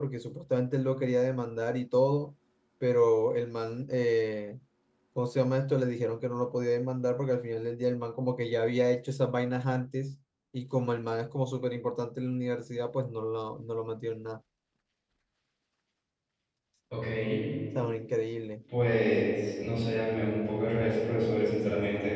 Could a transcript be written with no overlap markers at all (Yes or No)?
Yes